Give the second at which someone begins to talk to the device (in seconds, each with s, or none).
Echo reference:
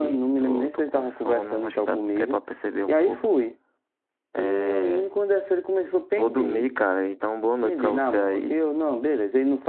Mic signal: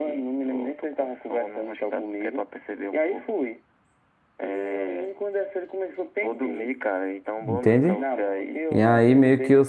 7.5 s